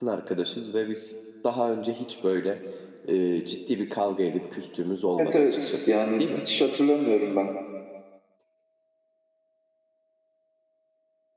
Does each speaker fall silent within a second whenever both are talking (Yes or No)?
No